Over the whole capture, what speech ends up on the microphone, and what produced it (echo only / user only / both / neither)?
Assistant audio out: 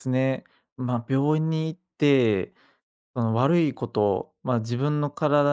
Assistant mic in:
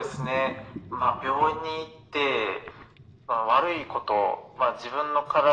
echo only